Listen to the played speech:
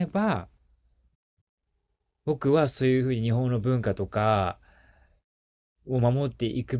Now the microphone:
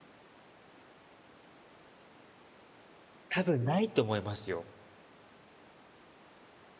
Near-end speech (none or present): present